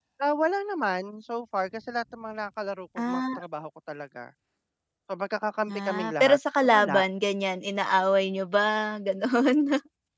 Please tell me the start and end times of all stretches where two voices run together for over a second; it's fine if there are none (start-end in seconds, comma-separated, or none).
5.7-7.0